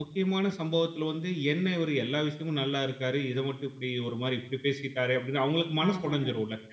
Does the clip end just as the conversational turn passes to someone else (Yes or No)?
Yes